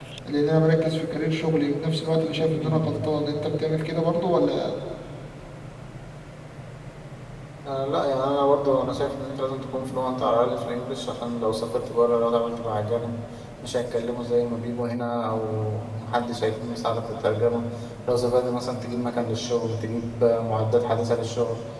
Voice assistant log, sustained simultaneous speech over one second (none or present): none